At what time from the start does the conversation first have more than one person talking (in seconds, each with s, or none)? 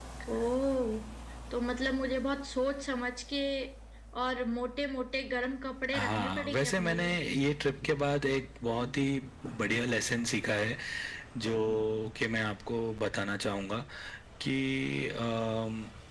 5.9 s